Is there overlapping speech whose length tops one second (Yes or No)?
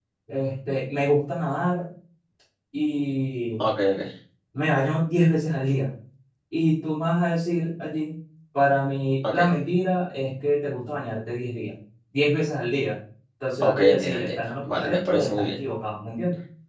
Yes